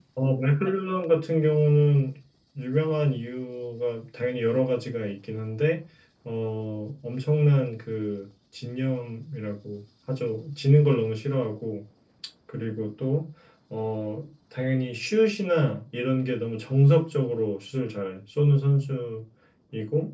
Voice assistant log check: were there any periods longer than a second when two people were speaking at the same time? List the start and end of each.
none

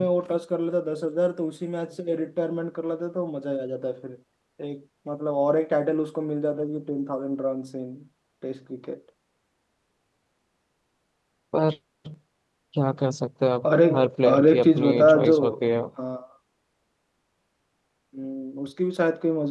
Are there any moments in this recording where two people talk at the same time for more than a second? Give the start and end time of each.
13.6-15.4

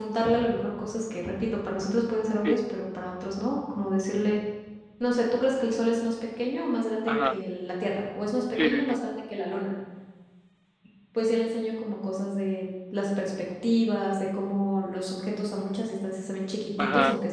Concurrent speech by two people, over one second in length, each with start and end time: none

